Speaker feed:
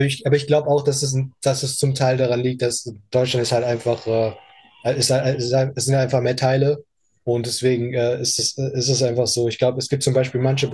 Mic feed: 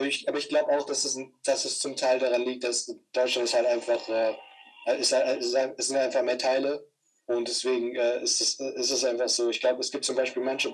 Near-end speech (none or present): none